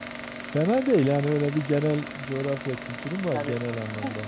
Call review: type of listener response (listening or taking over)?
taking over